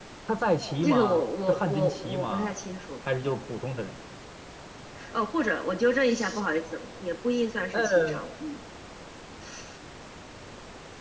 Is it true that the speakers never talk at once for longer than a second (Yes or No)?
No